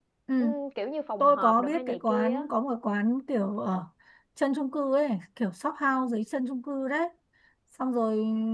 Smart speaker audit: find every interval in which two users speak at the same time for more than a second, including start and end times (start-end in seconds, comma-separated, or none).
1.2-2.4